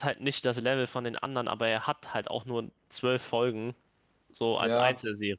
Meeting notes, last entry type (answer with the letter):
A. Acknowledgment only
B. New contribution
B